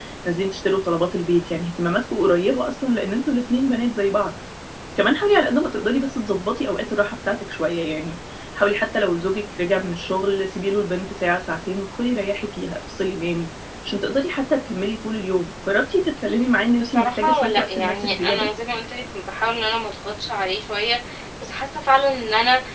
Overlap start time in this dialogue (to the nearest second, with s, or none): 17 s